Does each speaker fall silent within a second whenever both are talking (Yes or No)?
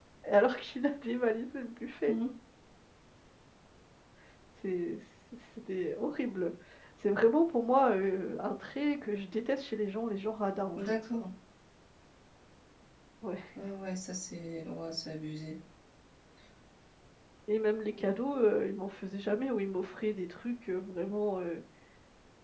Yes